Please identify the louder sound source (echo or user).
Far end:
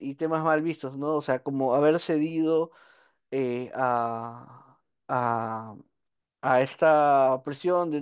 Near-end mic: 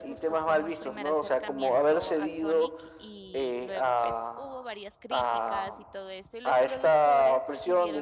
echo